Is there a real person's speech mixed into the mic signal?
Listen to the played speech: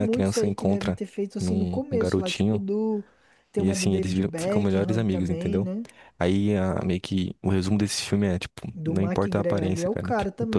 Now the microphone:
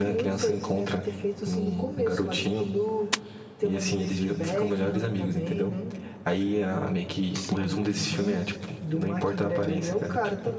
Yes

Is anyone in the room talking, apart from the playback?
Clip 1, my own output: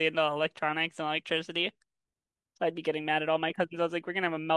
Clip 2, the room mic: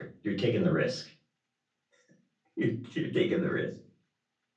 Yes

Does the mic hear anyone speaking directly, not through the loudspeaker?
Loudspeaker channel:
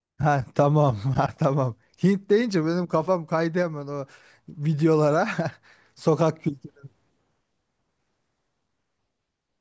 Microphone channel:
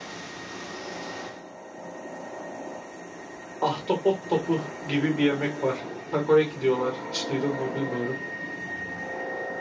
Yes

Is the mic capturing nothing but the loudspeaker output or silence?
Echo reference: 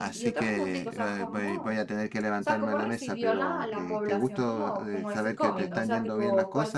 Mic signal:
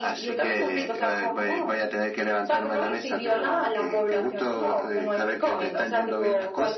Yes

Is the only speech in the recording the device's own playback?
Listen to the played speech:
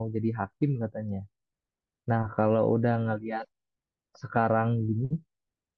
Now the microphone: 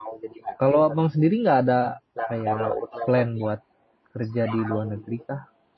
No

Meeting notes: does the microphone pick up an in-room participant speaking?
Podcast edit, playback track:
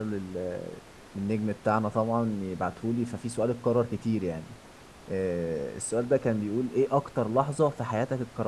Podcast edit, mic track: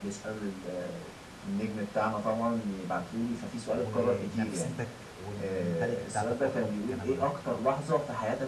Yes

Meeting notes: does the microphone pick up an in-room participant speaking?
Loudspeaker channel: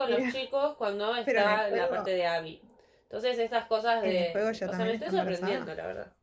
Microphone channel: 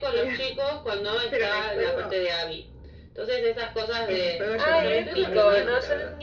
Yes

